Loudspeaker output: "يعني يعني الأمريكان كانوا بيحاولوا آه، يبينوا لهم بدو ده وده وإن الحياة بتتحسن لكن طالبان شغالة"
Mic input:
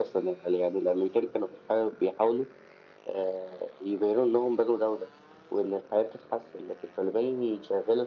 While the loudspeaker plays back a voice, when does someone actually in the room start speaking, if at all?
none

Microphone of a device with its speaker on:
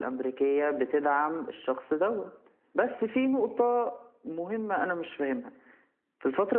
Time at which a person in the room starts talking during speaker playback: none

